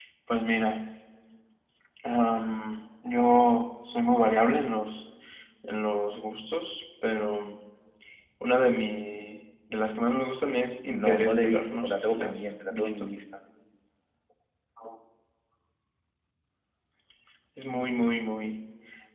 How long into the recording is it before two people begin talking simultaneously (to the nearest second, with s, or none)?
11 s